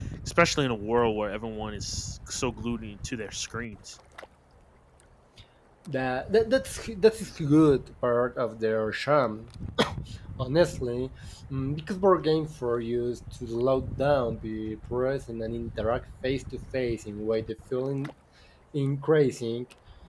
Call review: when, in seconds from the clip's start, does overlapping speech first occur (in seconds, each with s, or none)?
none